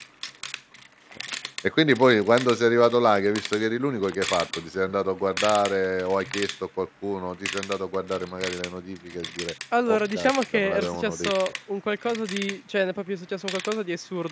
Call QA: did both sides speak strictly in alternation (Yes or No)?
No